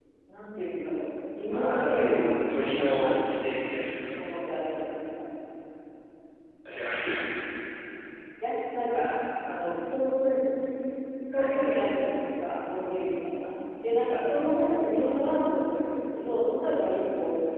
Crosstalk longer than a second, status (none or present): present